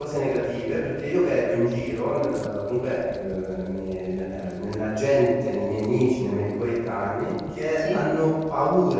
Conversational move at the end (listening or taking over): listening